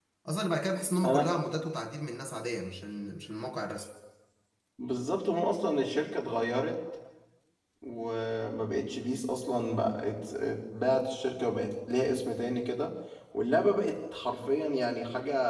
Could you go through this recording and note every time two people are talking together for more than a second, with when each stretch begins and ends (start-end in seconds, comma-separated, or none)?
none